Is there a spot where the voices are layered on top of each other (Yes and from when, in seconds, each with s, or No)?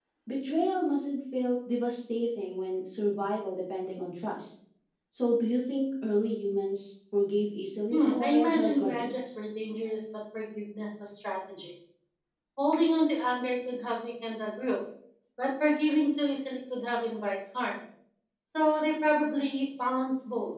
Yes, from 7.9 s